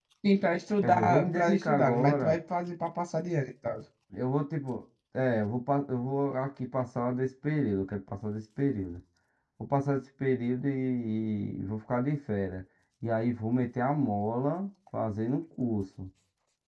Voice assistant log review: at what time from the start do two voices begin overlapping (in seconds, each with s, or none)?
0.8 s